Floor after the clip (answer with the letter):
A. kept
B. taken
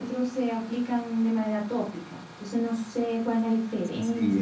B